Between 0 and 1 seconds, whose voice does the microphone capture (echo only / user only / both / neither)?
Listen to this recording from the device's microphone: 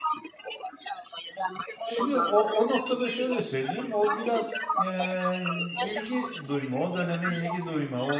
echo only